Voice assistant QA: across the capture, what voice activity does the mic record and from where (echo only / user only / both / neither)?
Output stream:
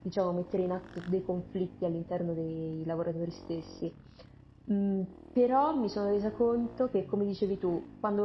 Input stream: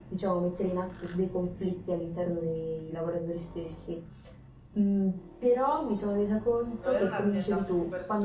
both